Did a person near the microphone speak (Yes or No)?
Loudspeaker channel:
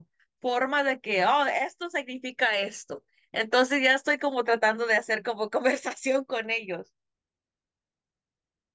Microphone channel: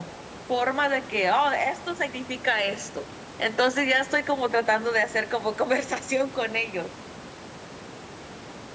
No